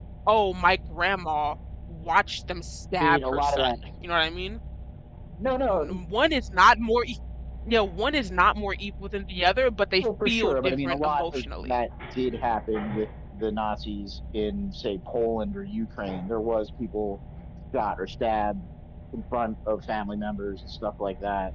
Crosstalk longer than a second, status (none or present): present